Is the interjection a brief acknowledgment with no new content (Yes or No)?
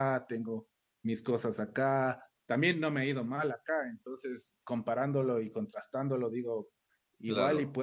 Yes